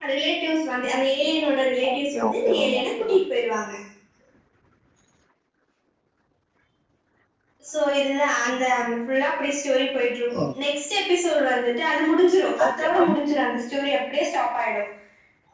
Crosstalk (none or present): present